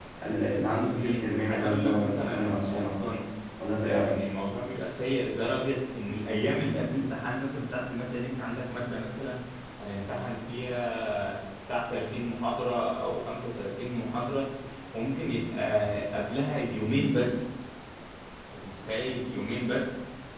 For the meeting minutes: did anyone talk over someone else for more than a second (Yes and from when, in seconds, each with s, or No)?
Yes, from 1.0 s